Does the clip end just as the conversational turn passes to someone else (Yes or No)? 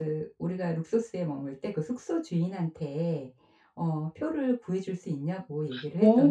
Yes